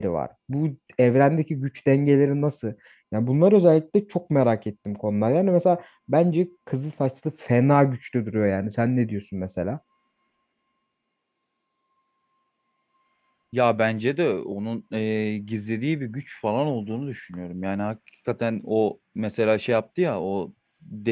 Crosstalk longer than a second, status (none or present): none